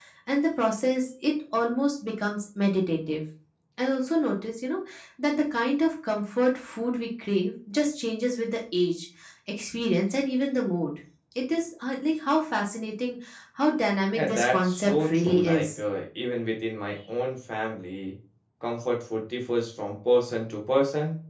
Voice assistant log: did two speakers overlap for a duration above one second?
Yes, from 14.1 s

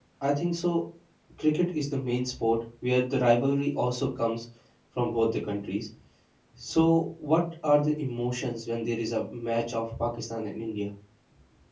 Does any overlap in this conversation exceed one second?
No

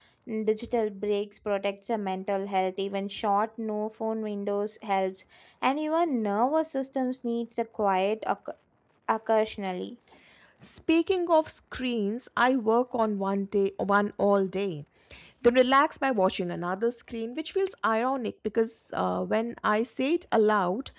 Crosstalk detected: No

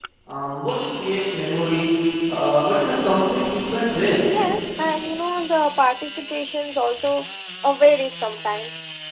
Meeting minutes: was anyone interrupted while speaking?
No

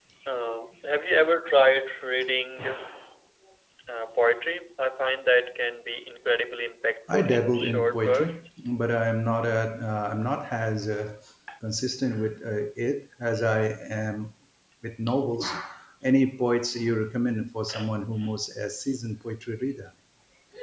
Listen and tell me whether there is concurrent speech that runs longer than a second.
Yes, from 7.1 s

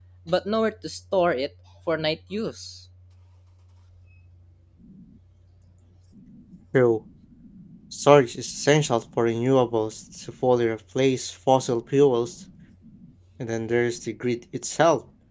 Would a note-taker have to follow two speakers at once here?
No

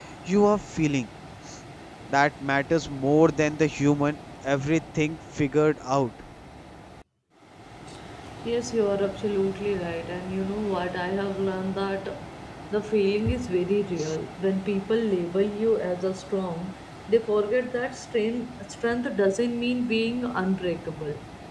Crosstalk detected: No

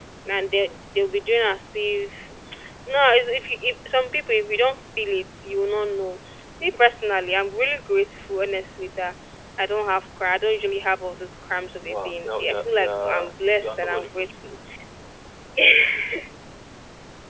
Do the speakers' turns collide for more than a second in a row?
Yes, from 11.9 s

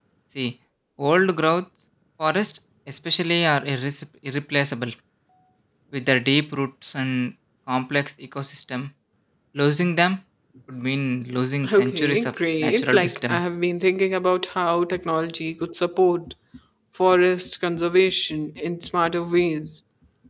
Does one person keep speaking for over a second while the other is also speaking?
Yes, from 11.6 s

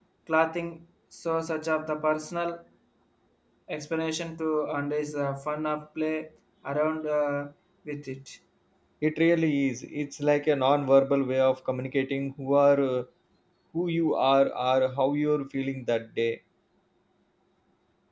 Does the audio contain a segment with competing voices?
No

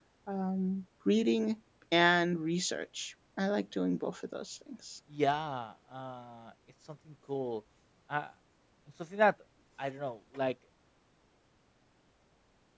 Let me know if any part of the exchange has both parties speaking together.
No

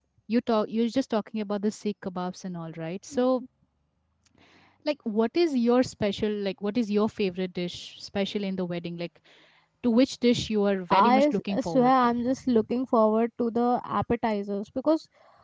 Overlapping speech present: Yes, from 10.9 s

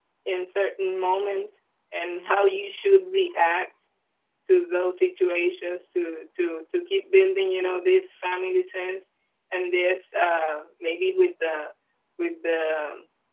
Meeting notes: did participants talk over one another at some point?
No

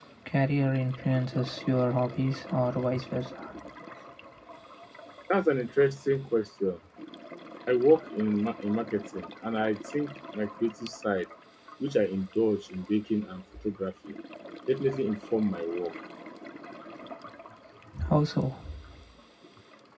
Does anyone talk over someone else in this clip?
No

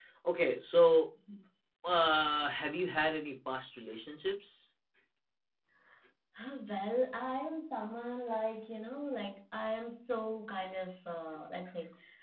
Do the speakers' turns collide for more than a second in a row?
No

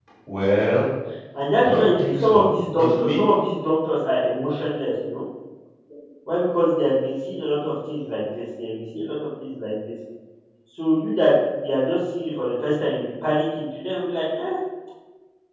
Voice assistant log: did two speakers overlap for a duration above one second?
Yes, from 1.6 s

